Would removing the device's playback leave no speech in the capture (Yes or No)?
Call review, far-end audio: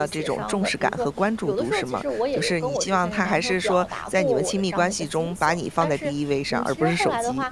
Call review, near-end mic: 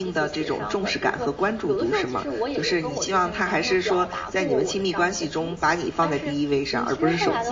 Yes